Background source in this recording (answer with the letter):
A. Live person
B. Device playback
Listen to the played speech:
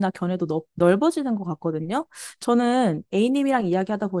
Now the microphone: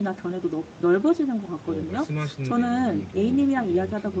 A